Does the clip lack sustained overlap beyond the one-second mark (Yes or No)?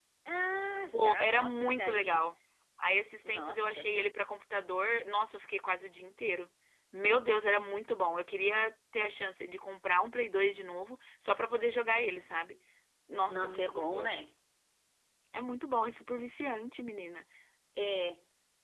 No